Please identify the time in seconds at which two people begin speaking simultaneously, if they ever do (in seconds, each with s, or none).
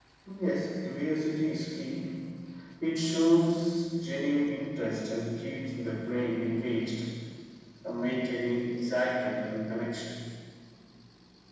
none